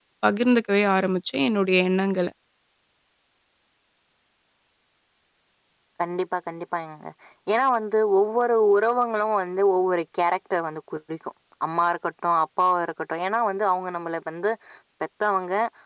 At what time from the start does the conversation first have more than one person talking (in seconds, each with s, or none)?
none